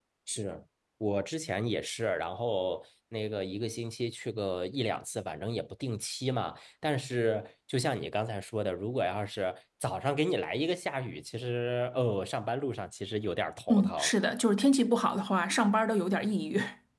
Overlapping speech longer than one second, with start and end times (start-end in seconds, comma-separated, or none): none